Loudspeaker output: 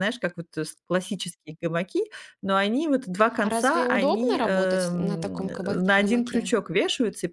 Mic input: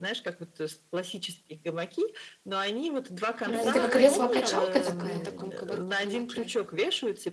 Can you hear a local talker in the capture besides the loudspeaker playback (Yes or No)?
Yes